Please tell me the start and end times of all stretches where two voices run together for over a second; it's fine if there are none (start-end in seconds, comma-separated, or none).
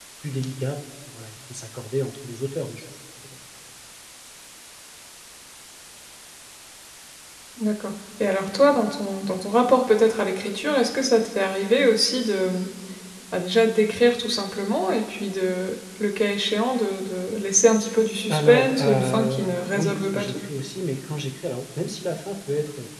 18.3-20.3